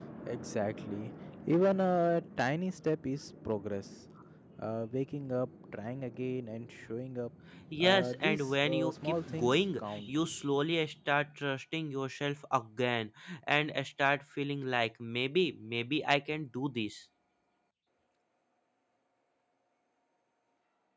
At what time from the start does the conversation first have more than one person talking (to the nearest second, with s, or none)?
8 s